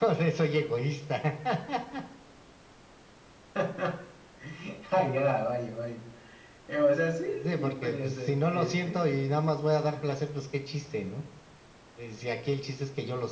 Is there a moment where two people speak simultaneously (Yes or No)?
Yes